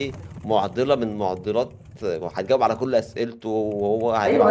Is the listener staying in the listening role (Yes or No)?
No